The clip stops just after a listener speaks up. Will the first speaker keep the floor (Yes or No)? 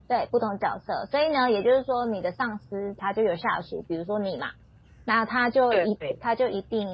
Yes